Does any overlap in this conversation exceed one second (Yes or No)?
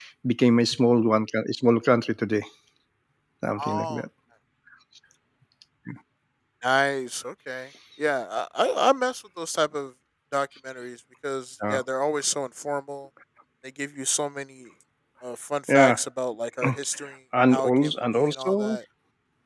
Yes